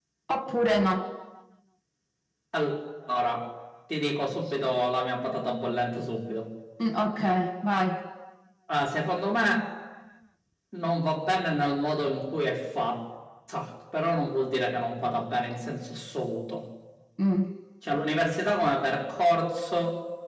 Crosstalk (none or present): none